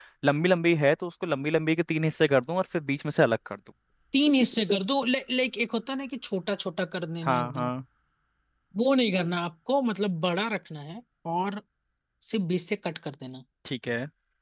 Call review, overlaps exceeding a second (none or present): none